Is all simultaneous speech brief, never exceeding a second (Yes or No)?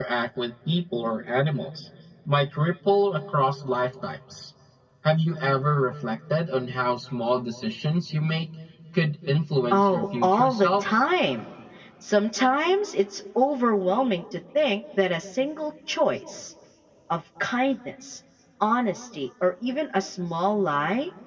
No